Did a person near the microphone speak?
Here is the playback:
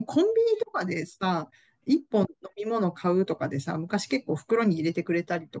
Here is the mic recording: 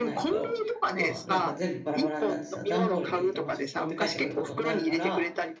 Yes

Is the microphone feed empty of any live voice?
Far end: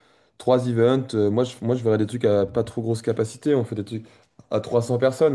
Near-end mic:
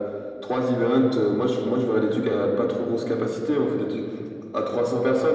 Yes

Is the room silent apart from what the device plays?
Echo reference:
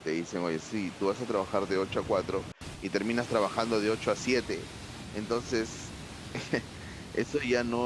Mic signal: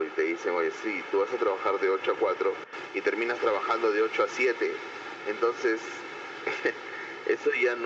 Yes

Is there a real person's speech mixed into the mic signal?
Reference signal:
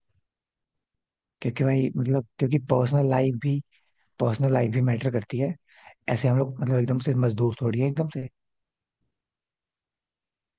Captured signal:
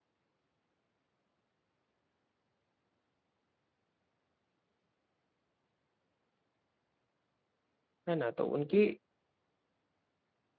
Yes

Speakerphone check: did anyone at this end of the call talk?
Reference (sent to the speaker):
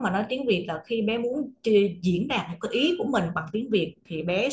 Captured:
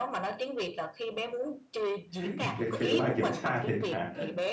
Yes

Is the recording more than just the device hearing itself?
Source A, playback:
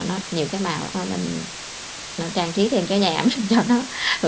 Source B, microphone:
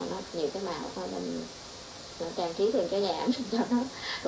No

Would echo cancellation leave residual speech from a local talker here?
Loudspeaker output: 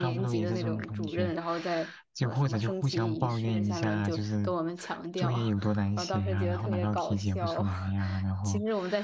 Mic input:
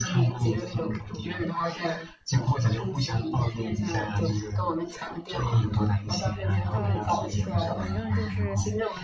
Yes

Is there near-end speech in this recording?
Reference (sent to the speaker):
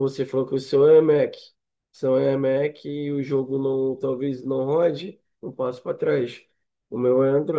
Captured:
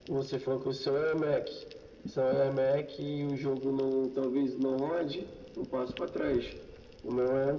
No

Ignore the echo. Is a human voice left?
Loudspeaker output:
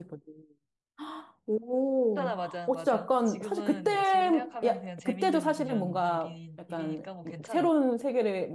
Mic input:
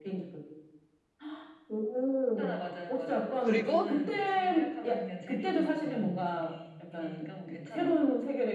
Yes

